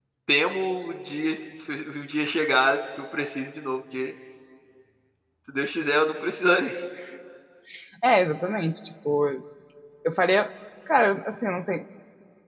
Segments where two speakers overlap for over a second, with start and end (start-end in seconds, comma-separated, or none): none